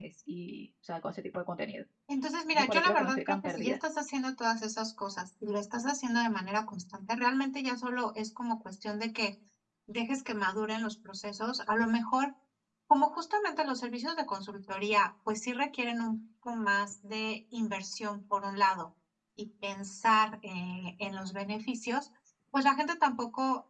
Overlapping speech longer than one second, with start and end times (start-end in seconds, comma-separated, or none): 2.5-3.8